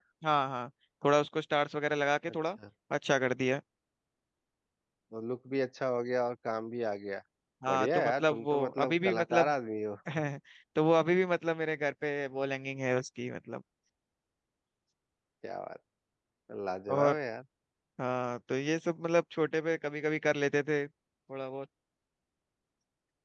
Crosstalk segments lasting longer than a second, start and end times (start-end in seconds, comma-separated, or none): 7.7-9.5